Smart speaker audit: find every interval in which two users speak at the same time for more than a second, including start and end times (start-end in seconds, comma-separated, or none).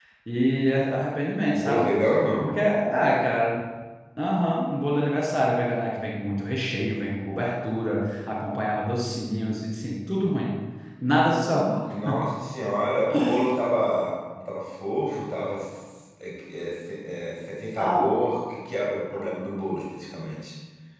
none